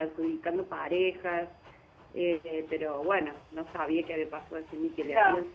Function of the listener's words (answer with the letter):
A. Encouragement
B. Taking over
B